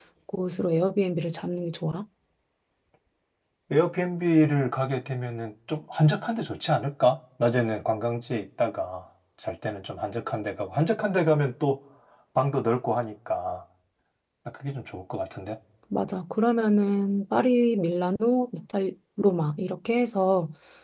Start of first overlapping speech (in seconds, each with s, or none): none